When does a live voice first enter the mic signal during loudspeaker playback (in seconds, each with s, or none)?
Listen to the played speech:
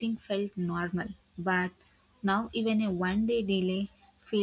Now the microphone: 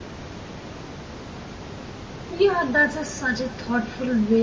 2.3 s